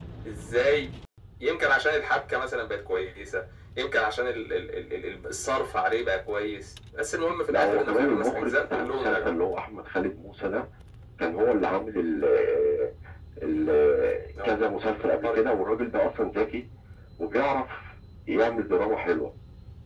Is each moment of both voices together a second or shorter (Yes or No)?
No